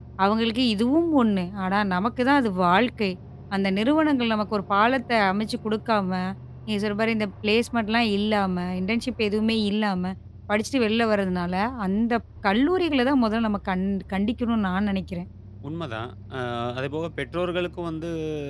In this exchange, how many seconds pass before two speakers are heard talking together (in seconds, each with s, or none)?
none